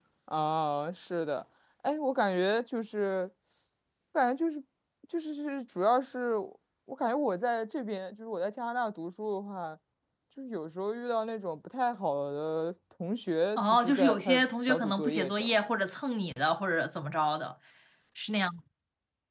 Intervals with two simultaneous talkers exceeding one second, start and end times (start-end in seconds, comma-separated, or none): 13.6-15.5